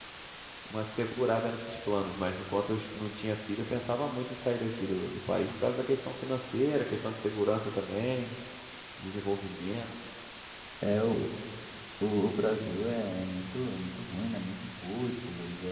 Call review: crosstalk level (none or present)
none